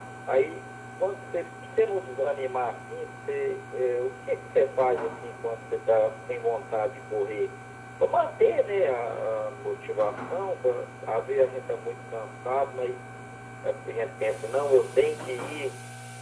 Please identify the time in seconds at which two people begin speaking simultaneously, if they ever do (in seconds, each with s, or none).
none